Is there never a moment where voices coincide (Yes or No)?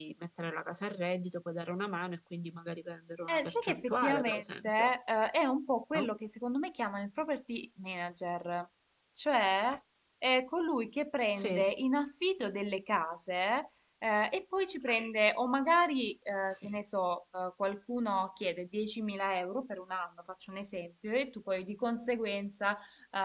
No